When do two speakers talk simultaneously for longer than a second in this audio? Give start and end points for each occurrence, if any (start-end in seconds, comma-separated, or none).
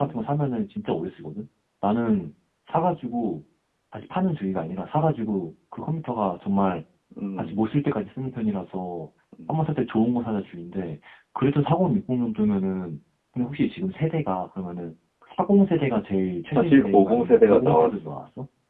16.6-18.1